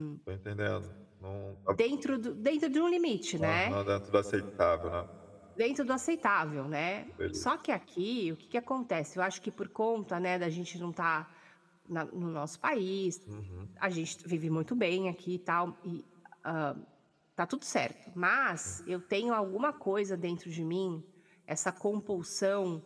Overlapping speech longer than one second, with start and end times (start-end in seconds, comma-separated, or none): none